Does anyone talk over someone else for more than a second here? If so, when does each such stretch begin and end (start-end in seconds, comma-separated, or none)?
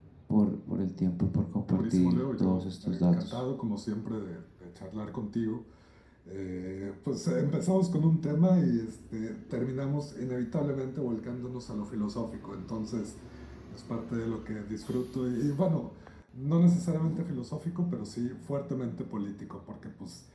1.7-3.4